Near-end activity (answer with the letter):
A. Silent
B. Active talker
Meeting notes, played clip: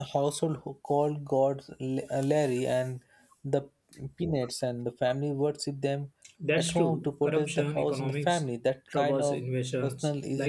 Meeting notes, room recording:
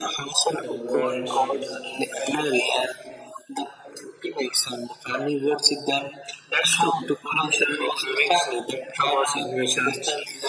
B